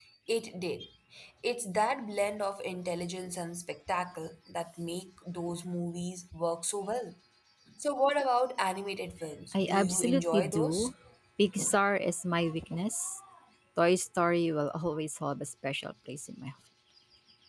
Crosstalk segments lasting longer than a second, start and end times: 9.6-10.9

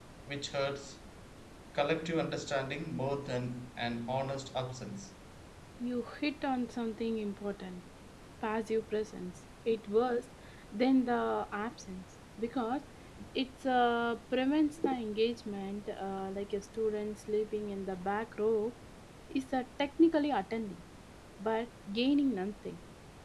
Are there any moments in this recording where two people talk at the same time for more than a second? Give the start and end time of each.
none

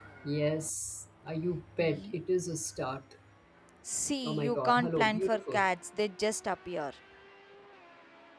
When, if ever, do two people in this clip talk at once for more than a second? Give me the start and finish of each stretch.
4.2-5.6

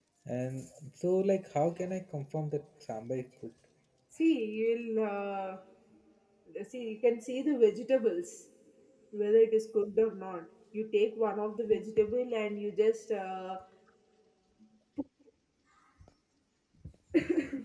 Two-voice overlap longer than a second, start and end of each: none

